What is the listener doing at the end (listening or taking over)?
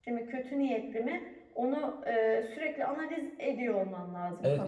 taking over